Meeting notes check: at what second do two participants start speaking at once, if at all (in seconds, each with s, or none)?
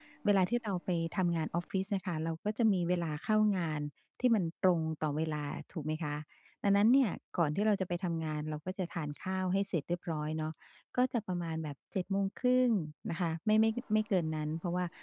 none